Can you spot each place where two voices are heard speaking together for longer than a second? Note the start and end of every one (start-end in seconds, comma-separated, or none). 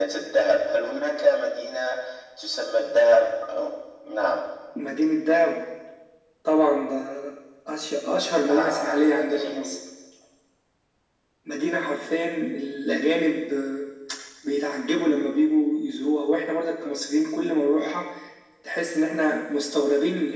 8.5-9.8